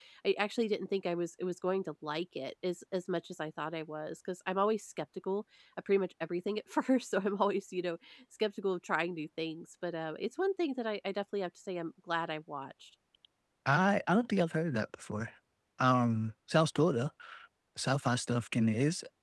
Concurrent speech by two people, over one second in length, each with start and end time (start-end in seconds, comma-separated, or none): none